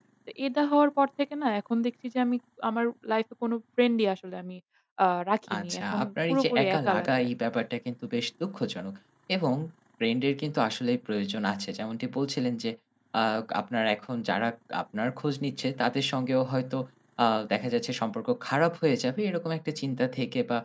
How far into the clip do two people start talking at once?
5.6 s

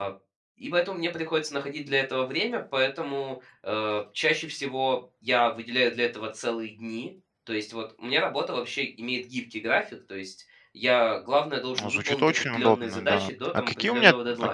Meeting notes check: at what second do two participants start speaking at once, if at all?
11.8 s

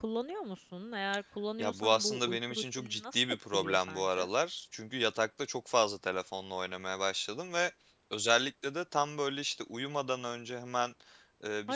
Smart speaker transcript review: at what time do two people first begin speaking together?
1.6 s

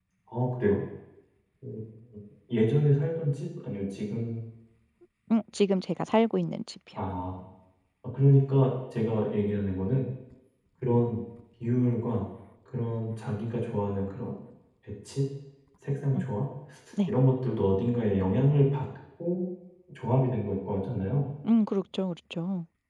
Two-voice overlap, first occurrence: none

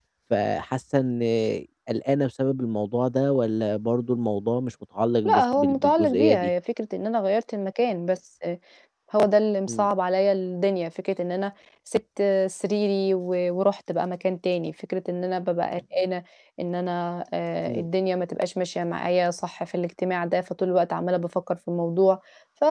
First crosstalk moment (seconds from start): 5.2 s

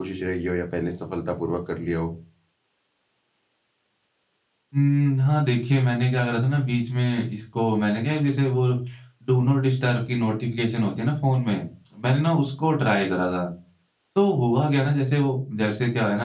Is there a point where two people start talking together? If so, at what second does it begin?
none

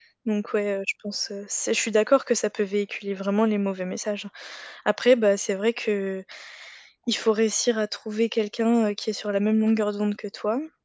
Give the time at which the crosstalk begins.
none

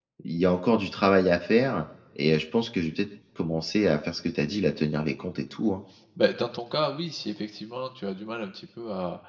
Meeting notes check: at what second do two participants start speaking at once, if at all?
none

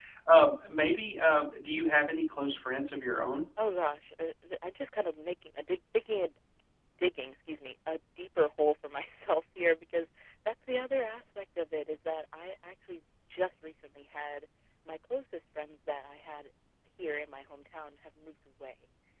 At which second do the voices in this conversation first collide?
none

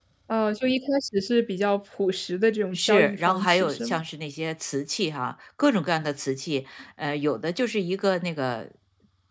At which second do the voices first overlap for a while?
2.7 s

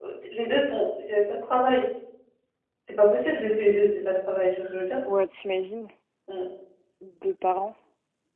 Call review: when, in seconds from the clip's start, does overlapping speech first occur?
none

